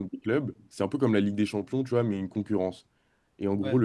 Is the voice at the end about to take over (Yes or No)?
No